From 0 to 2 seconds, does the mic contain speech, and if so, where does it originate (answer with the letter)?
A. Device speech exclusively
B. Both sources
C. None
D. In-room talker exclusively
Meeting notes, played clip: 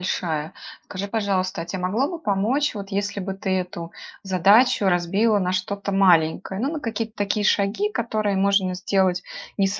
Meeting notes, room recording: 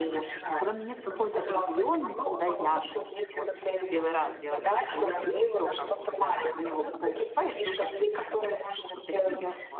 B